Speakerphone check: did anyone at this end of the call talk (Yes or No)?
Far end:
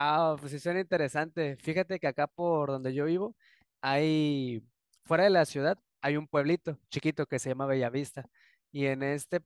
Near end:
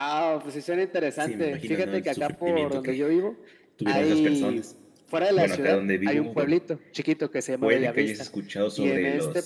Yes